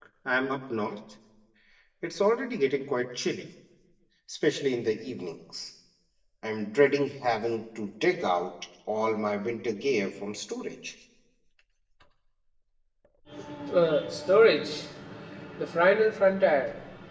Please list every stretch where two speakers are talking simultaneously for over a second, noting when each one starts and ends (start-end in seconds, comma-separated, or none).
none